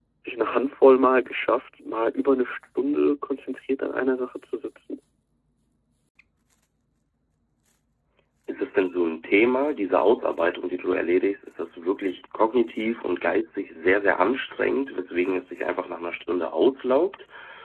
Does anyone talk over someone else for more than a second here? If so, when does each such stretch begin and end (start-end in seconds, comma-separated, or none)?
none